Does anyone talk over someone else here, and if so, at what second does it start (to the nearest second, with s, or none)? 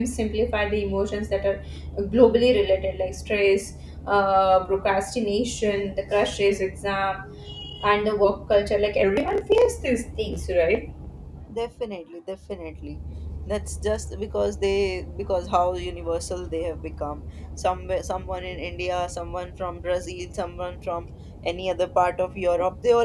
none